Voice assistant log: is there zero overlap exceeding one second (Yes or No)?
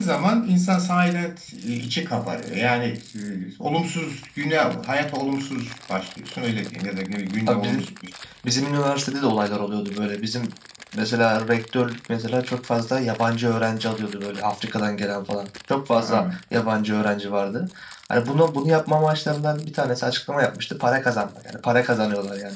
Yes